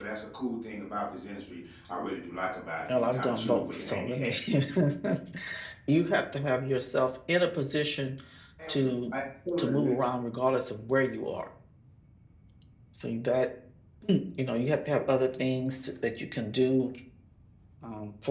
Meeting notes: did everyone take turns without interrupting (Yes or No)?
No